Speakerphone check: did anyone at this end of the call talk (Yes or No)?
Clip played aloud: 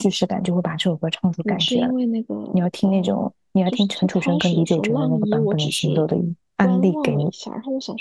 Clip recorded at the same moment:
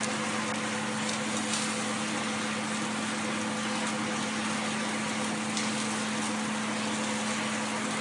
No